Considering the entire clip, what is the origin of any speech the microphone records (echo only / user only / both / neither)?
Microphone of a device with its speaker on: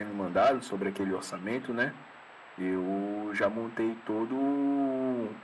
echo only